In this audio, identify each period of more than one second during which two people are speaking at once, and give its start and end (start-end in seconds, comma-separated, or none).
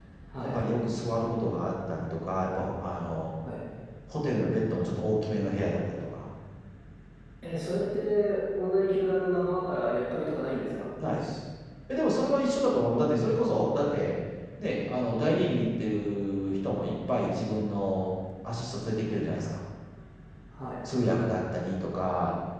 none